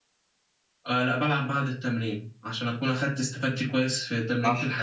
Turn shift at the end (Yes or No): Yes